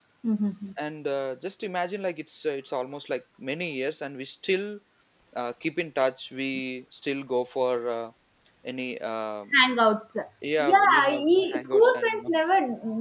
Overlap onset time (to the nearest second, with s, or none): 11 s